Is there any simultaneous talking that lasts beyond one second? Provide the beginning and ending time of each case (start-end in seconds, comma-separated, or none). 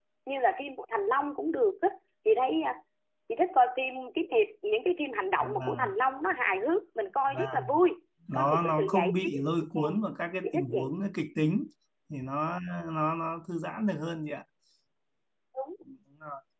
8.3-10.0